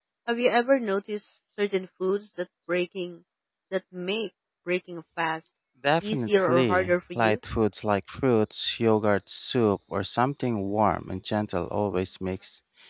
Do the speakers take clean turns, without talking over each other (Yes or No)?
No